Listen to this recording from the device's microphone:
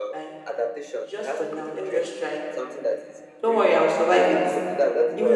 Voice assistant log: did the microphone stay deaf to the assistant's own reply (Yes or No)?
No